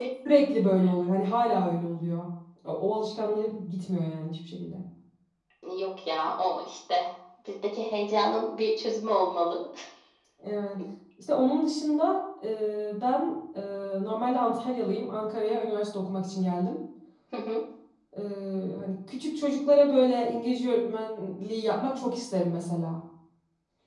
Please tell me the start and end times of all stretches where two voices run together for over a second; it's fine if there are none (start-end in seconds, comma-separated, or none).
none